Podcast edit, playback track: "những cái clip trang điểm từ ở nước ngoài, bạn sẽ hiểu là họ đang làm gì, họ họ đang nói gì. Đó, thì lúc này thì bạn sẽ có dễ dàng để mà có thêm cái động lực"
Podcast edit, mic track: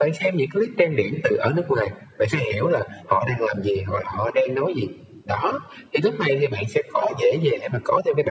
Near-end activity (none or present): none